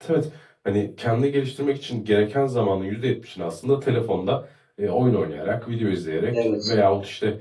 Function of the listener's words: listening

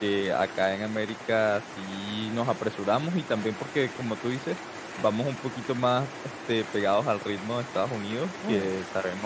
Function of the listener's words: listening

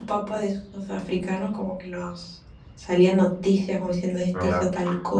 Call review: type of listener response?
taking over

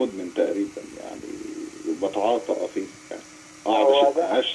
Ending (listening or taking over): listening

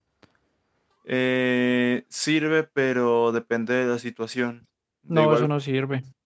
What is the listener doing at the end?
taking over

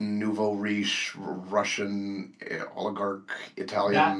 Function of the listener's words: taking over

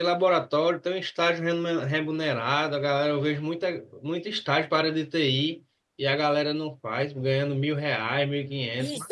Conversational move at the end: taking over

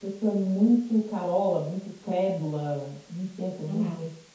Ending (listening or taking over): taking over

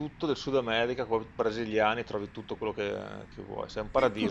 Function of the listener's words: taking over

